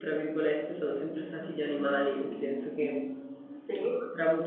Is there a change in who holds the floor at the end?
No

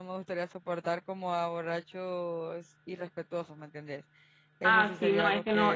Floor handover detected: Yes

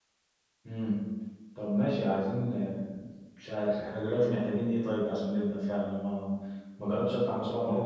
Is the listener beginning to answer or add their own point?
No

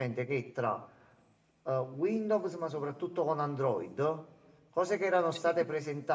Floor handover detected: No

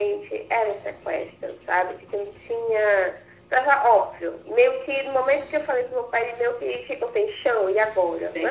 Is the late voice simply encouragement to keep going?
No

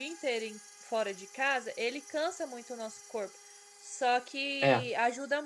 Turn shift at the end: No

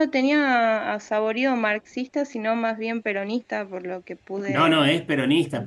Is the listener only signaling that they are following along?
No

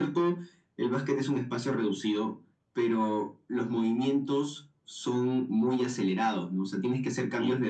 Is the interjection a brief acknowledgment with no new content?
Yes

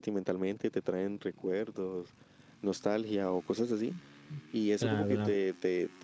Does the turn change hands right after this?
No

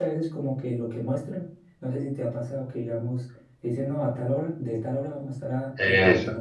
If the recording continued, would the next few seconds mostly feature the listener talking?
No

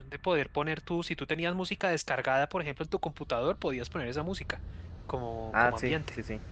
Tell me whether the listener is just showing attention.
No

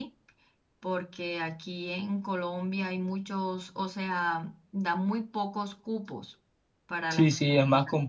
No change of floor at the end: No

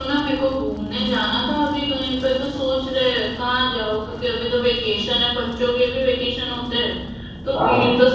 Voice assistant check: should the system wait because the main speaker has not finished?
Yes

